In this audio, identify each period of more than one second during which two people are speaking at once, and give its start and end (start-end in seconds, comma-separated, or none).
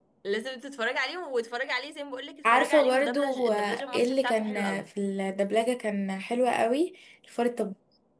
2.4-4.8